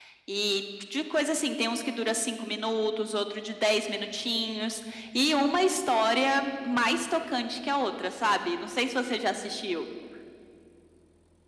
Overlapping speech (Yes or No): No